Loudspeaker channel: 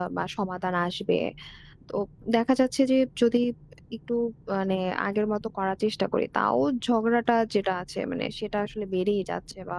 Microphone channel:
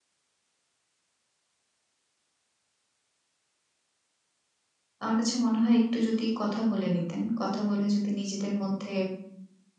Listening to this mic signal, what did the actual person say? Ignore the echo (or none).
আমার কাছে মনে হয় একটু যদি কথা বলে নিতেন। কথা বলে যদি নিজেদের মধ্যে